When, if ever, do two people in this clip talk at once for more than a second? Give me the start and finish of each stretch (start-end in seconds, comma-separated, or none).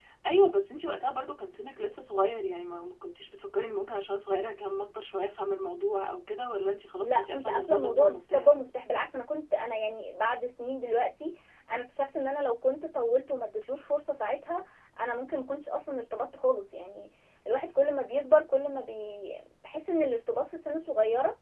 7.0-8.5